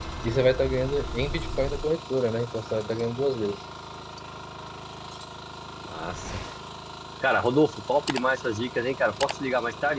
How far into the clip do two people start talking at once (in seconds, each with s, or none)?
none